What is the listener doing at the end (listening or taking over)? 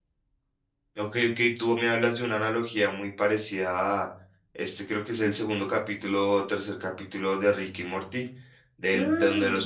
listening